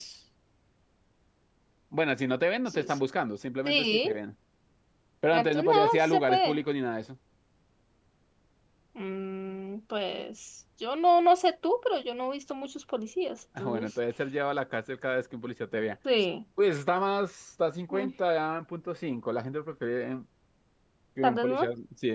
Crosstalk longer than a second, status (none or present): present